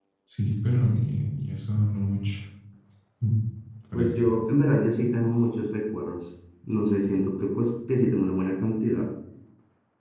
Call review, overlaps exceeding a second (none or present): none